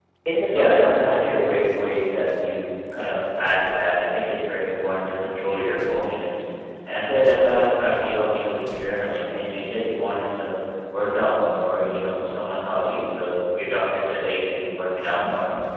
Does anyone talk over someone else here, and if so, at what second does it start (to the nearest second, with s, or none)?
1 s